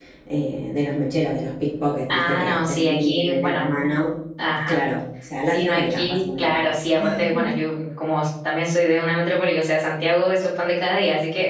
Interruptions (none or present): present